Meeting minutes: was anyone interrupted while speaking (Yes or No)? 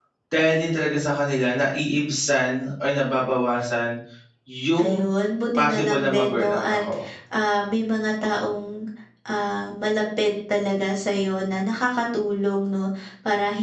Yes